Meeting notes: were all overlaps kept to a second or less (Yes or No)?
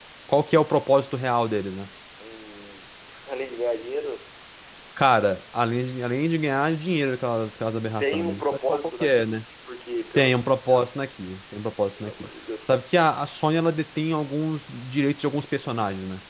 No